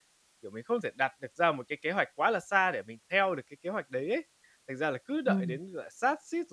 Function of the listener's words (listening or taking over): listening